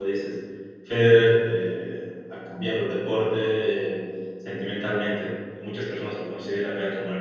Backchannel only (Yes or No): Yes